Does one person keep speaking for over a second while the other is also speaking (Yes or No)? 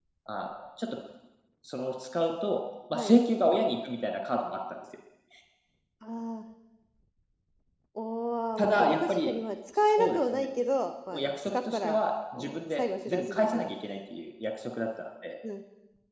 Yes